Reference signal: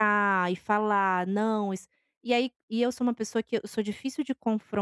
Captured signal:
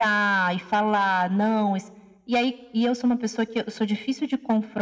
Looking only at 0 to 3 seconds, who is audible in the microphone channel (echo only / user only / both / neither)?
echo only